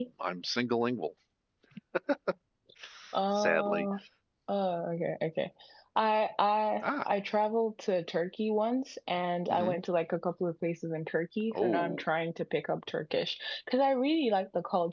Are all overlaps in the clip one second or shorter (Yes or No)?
Yes